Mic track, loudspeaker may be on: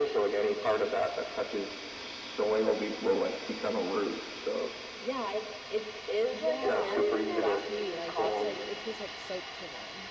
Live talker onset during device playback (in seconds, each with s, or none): 6.3 s